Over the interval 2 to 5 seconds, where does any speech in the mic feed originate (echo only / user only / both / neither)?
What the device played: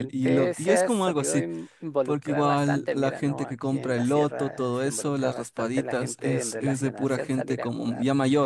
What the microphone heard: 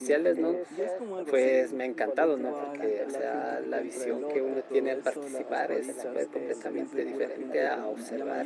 both